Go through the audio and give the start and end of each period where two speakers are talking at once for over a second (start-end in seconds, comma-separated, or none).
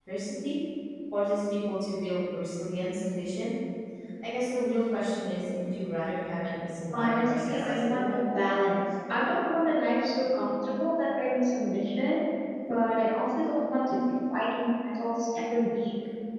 6.9-8.2